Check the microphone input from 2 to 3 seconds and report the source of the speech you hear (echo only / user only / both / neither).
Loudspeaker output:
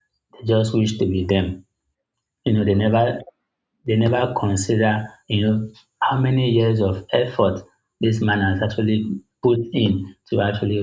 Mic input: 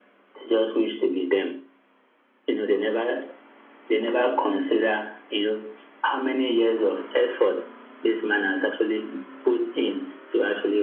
echo only